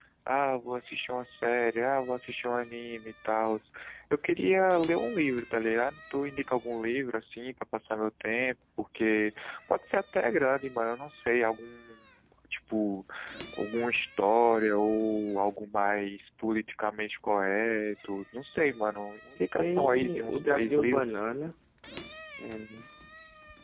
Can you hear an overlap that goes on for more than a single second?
Yes, from 19.6 s

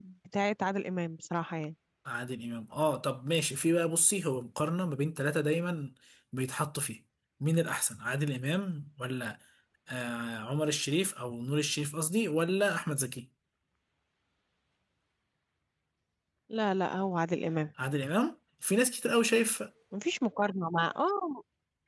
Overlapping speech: No

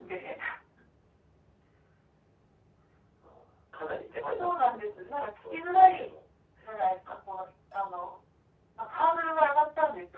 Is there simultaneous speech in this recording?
Yes, from 4.4 s

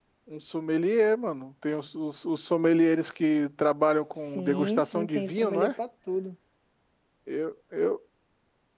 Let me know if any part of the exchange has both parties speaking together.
Yes, from 4.2 s

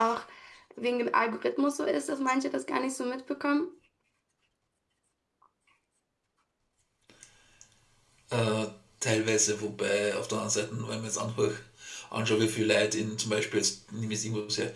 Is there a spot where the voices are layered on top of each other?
No

